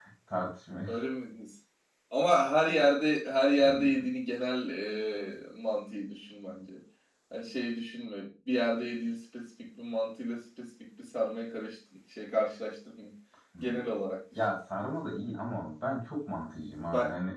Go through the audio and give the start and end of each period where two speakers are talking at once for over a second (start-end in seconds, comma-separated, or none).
none